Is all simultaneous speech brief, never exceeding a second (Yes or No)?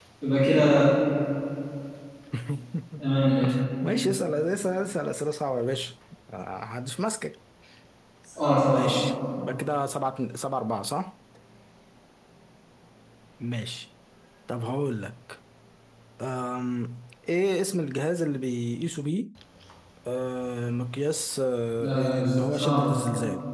No